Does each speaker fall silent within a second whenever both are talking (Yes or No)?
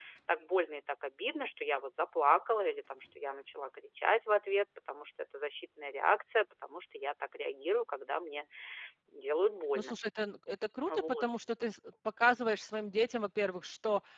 Yes